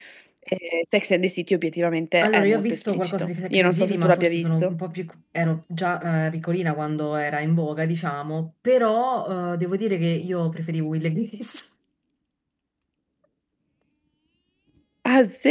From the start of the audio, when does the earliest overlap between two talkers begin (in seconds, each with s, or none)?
2.2 s